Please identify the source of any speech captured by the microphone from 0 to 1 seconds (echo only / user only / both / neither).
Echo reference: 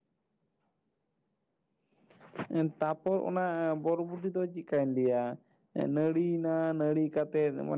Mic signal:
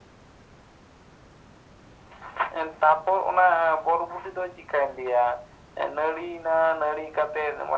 neither